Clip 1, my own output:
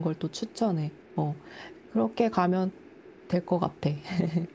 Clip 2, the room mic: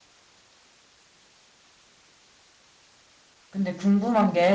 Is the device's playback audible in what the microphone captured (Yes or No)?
No